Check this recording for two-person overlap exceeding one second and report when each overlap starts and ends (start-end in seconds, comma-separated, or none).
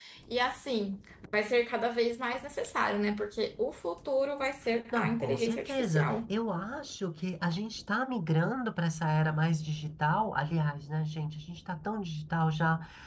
4.9-6.3